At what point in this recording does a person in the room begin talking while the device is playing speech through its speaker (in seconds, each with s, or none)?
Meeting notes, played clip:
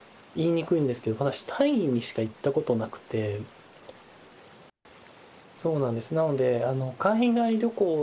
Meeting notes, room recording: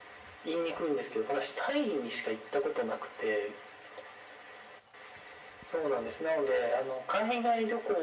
none